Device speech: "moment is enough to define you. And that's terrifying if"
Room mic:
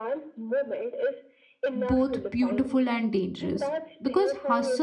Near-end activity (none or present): present